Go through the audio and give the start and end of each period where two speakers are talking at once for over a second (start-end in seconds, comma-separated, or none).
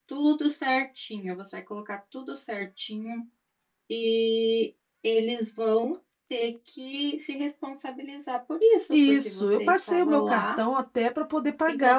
8.9-10.6